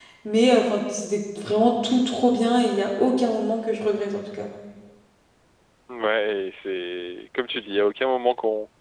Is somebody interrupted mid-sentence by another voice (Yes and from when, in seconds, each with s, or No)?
No